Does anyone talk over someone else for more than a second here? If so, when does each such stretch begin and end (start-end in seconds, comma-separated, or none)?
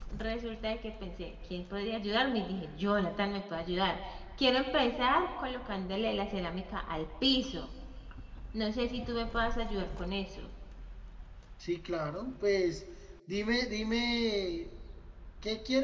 none